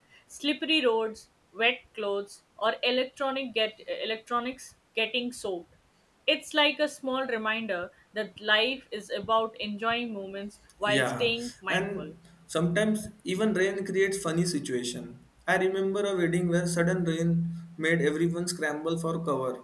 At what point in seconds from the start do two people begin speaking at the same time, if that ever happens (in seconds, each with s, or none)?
10.9 s